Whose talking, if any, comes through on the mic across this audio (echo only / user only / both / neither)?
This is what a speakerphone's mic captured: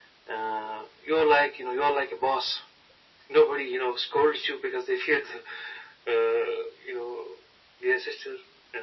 echo only